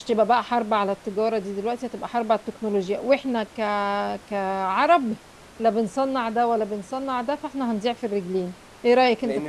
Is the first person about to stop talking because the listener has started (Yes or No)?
Yes